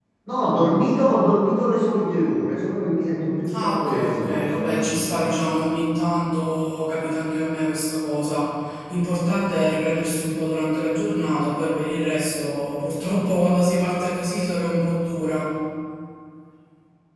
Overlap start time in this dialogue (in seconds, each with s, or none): 3.4 s